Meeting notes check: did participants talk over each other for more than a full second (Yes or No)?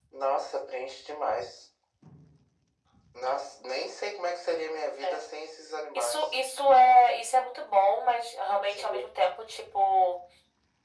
No